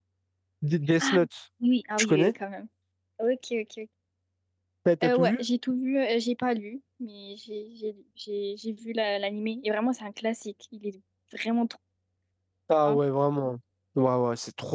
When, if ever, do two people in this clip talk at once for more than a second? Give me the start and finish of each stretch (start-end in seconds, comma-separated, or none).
none